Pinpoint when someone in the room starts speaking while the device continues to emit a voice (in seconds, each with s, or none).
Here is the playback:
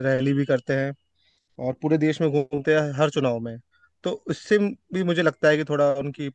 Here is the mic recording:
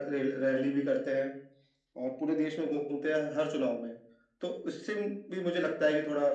none